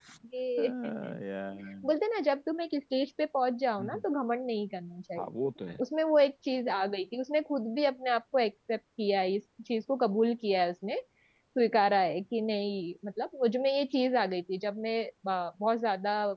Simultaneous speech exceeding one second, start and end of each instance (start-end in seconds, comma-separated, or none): none